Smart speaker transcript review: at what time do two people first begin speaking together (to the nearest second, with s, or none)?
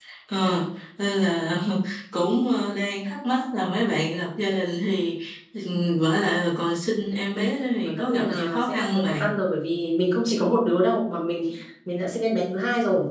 8 s